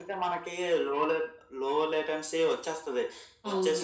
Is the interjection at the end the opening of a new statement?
No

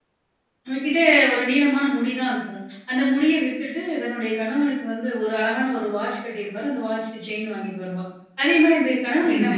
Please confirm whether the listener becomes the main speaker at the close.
No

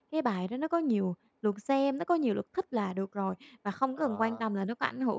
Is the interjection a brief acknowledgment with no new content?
Yes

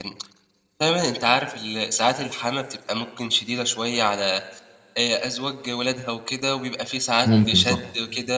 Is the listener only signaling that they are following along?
Yes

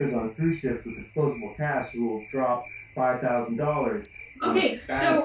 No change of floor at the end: No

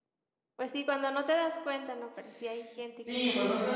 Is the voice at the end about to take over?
Yes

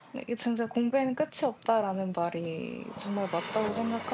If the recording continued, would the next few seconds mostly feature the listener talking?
No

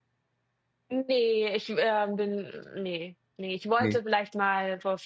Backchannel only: Yes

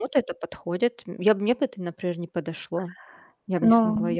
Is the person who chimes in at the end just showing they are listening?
No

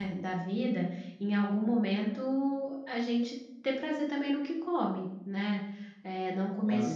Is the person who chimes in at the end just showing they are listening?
Yes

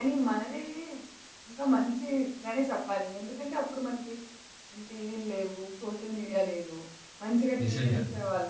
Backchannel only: Yes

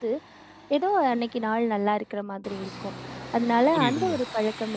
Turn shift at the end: No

